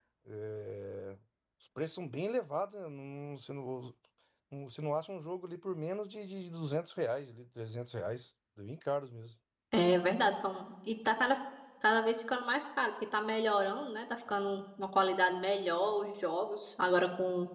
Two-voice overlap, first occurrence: none

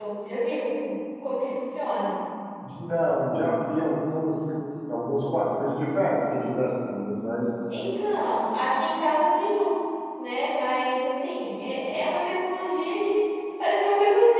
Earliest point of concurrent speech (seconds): none

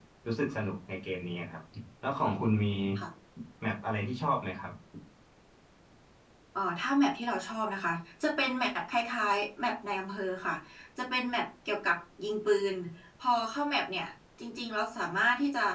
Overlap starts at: none

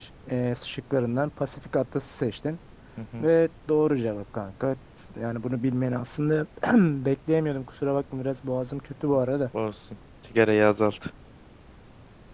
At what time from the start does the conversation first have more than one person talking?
none

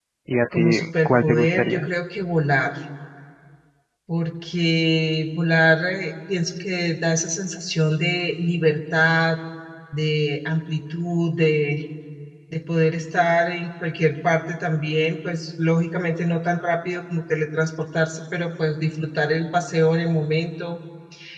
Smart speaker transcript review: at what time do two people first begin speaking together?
0.5 s

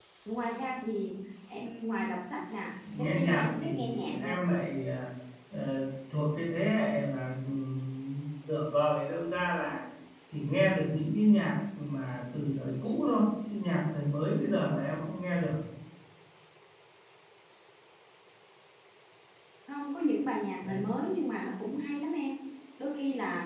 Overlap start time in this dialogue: 2.8 s

